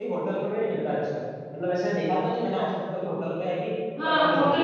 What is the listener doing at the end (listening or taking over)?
taking over